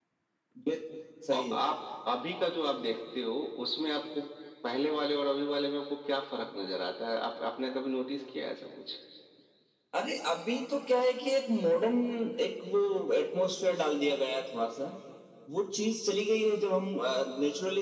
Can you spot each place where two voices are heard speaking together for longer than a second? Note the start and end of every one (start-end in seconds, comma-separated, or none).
none